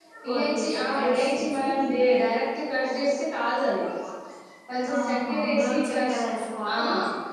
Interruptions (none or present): present